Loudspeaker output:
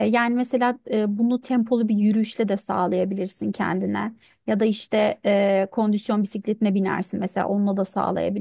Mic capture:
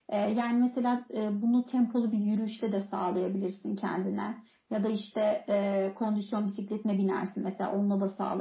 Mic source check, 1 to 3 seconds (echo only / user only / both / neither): echo only